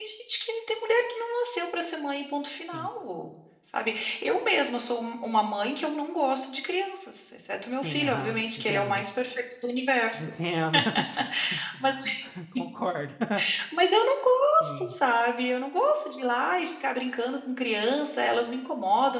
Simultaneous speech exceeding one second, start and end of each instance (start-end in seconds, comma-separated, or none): 7.7-9.1